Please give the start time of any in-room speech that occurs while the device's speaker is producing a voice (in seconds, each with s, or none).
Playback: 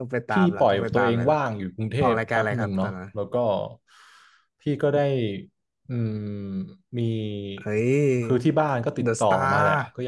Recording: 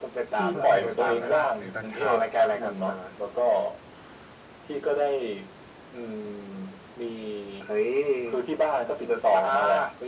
0.5 s